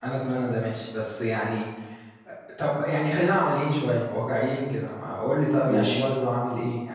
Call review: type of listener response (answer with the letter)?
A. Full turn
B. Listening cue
B